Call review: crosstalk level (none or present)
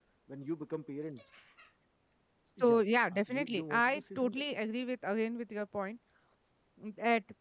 present